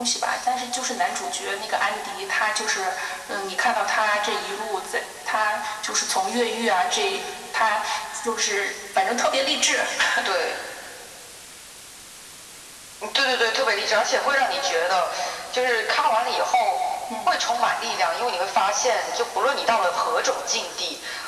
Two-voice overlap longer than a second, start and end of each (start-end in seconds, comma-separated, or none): none